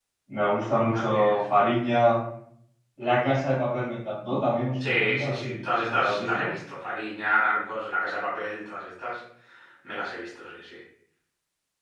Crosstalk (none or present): present